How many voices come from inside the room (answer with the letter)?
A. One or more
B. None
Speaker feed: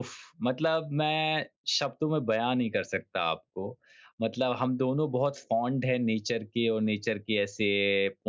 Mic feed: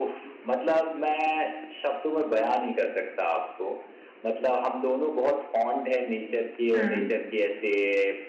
A